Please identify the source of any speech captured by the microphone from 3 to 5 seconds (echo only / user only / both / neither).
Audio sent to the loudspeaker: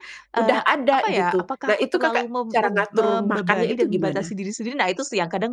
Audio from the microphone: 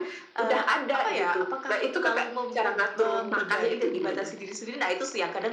echo only